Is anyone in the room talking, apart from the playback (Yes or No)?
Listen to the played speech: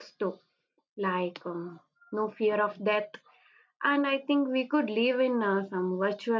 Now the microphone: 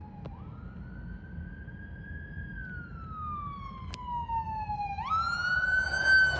No